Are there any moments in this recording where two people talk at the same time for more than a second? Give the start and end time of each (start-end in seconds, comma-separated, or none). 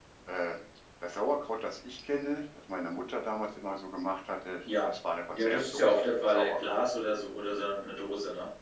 5.3-6.9